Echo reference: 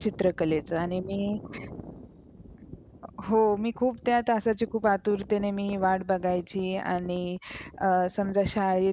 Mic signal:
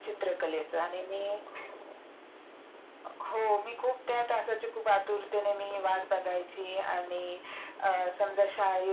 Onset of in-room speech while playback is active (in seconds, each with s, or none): none